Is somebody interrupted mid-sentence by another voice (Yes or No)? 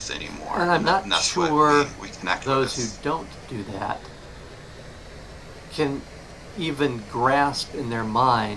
Yes